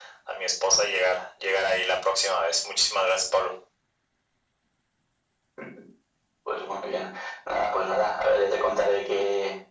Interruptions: none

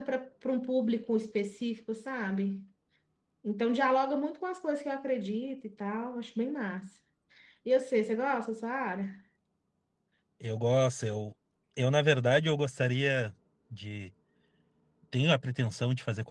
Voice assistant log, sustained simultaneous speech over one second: none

